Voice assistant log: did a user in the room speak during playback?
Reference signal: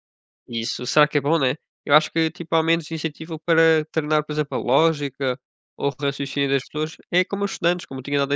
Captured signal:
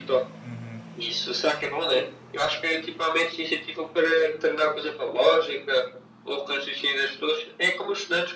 Yes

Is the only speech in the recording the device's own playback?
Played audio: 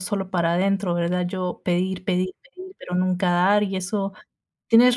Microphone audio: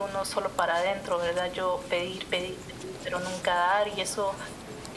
Yes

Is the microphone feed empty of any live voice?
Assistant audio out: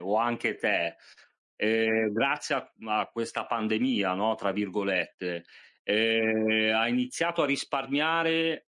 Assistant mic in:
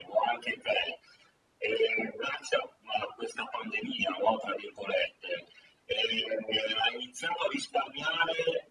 Yes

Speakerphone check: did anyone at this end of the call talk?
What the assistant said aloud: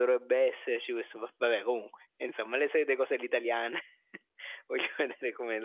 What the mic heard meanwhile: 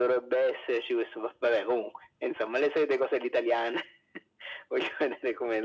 No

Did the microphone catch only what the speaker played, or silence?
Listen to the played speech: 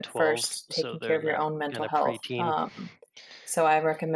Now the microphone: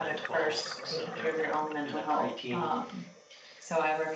Yes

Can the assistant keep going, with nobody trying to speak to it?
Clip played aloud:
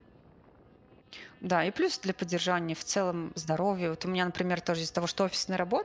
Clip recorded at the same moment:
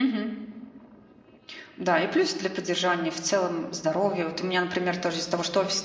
Yes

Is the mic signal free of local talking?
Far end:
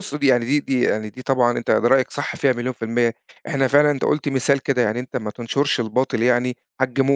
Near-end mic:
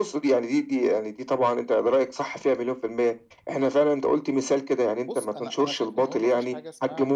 No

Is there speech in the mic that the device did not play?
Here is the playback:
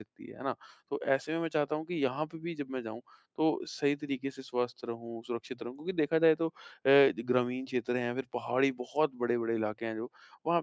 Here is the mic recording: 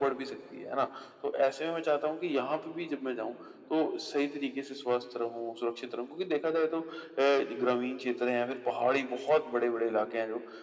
No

